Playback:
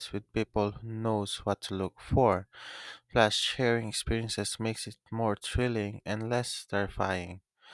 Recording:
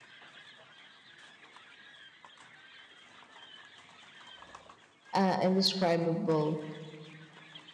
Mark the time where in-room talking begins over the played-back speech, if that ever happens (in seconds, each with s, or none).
5.1 s